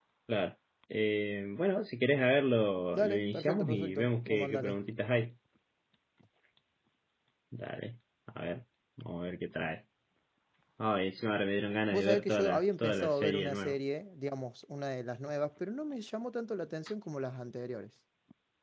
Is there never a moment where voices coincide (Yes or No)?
No